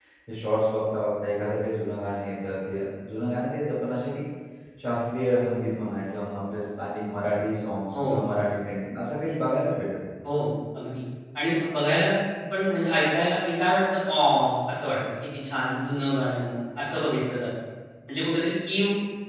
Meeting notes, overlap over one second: none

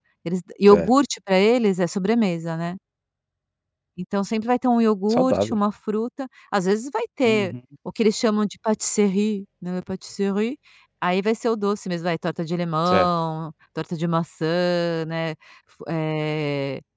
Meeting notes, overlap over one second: none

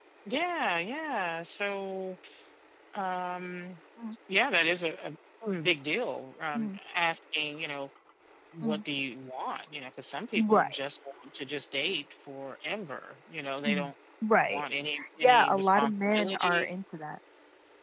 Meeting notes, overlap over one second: present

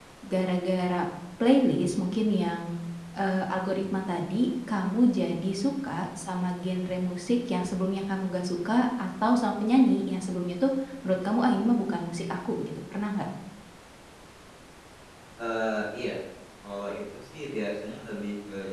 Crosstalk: none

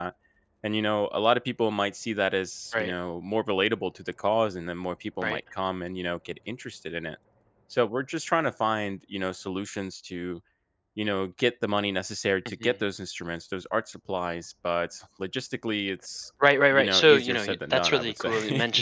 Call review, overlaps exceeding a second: present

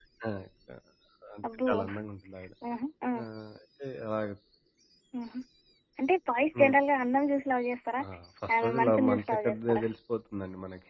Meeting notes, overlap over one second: present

